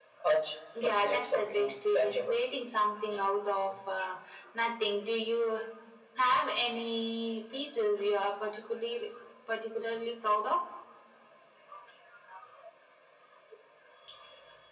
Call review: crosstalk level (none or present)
present